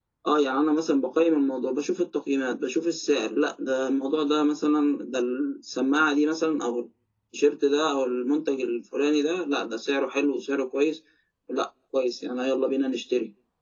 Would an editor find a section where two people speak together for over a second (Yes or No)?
No